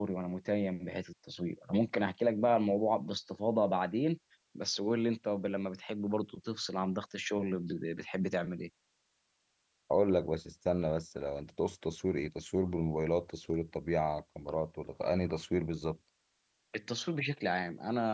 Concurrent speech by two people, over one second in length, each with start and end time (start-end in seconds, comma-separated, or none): none